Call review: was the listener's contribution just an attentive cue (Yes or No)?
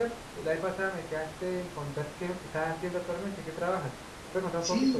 No